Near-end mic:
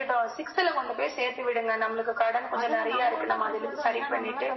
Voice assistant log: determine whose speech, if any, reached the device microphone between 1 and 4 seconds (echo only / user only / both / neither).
both